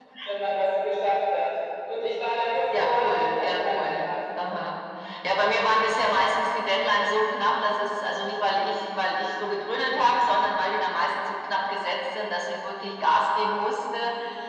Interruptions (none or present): present